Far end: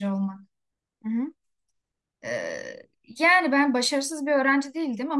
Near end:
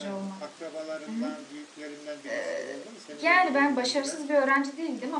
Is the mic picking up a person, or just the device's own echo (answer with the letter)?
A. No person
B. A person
B